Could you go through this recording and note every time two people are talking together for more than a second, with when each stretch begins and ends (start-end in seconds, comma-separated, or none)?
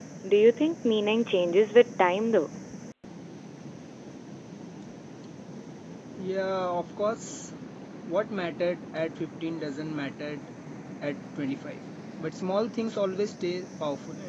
none